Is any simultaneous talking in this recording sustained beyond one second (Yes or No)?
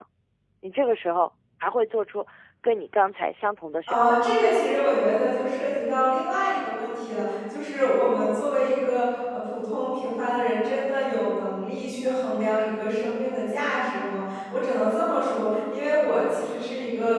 No